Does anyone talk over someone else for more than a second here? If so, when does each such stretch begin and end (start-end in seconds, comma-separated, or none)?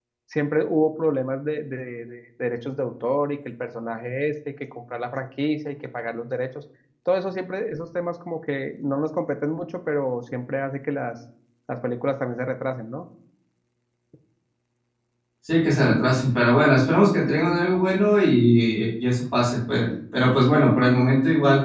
none